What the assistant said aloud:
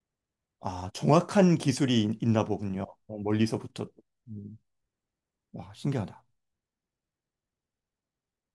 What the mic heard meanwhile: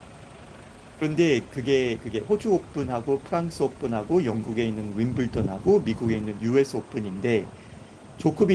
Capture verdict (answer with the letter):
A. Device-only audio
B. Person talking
B